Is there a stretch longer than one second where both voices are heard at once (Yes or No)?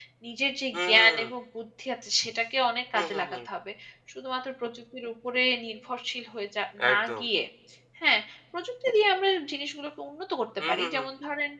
No